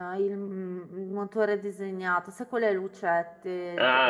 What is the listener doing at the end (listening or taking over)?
taking over